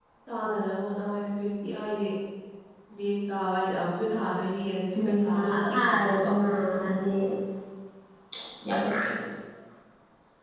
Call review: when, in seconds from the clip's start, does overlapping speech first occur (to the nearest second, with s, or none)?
5 s